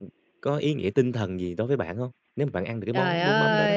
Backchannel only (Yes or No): No